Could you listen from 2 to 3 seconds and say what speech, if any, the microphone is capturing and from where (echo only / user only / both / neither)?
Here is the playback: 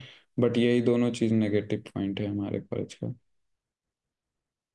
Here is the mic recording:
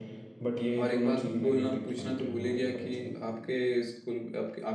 both